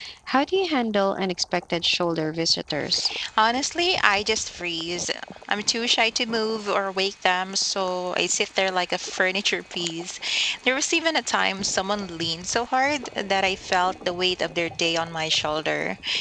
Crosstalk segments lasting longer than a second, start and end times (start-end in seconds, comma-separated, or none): none